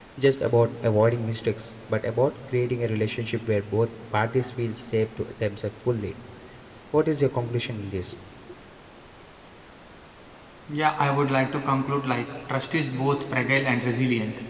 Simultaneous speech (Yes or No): No